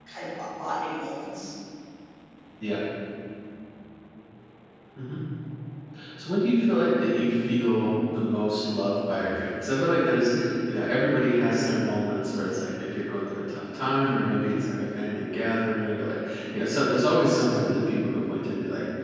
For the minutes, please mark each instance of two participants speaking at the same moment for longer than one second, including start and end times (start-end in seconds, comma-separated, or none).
none